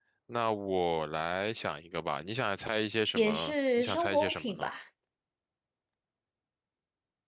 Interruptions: present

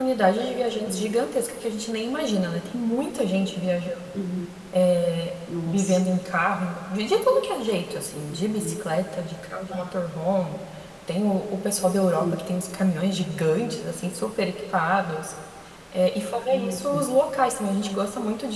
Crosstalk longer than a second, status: none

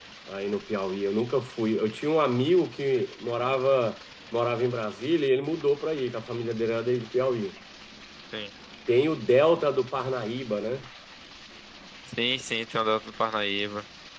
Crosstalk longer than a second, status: none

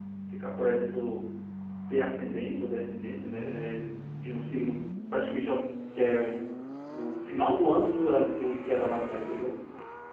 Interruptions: present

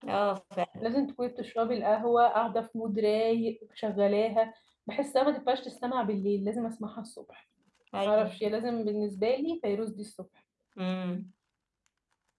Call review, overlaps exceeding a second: none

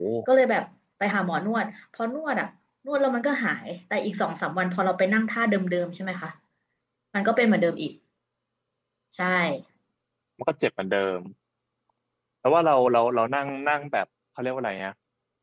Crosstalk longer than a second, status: none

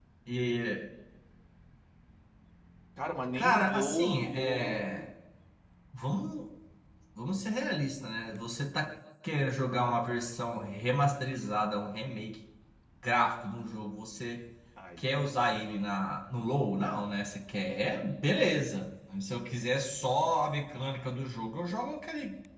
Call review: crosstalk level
present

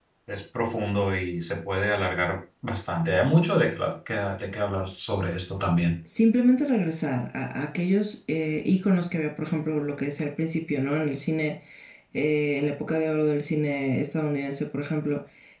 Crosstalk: none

